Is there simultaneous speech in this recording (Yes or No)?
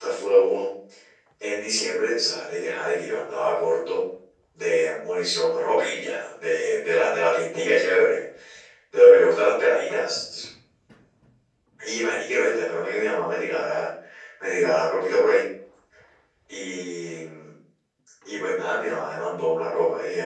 No